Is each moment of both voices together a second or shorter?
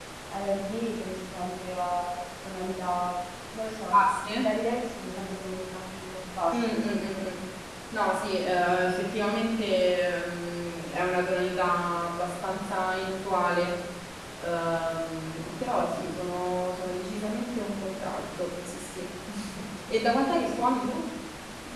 Yes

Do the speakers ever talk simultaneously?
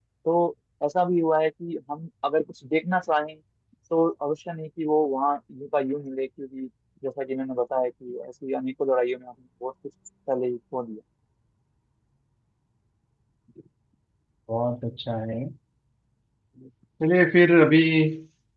No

